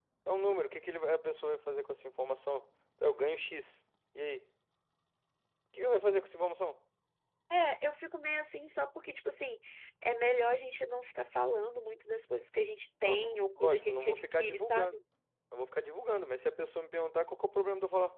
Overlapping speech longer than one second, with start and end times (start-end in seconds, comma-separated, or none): 13.0-15.0